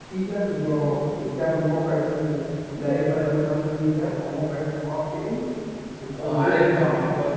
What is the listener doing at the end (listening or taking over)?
taking over